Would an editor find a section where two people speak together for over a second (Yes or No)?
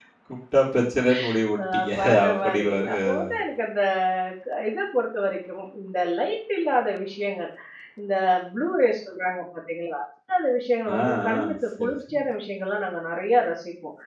Yes